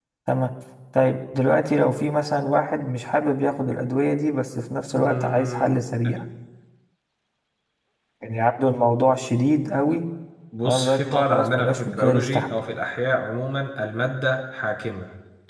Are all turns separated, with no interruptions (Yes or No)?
No